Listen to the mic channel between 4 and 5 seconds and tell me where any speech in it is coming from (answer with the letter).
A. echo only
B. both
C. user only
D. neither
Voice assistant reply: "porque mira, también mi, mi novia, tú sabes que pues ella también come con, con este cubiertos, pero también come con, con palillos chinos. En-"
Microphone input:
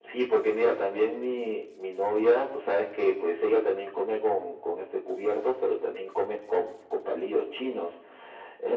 A